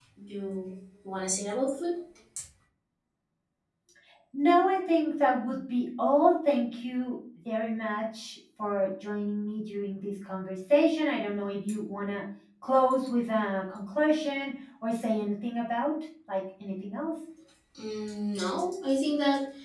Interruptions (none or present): none